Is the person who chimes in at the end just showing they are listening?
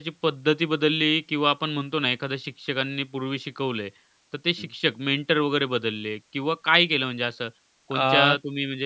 Yes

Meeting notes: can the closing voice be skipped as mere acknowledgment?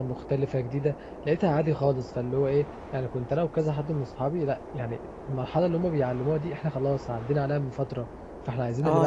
No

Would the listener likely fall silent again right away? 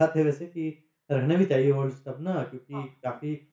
Yes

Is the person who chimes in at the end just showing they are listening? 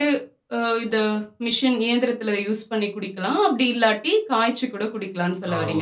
No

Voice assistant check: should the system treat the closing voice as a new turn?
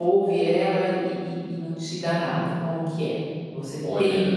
Yes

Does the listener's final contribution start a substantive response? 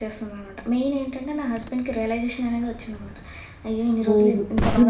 Yes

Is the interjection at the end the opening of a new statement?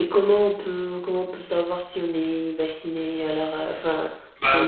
Yes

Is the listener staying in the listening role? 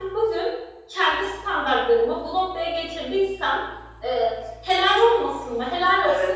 No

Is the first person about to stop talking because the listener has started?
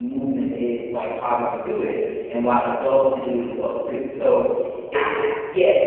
Yes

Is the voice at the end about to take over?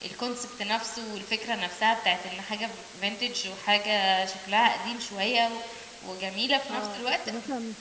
Yes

